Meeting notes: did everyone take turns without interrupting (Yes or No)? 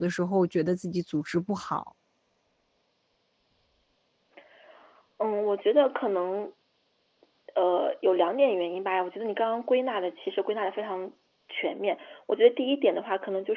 Yes